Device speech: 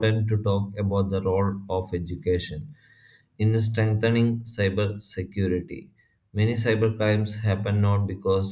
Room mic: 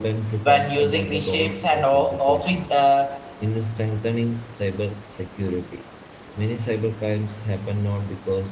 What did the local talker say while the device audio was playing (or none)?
when using the shapes and o- office uh,